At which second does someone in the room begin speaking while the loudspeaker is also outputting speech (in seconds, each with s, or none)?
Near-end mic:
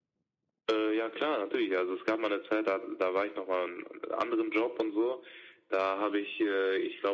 none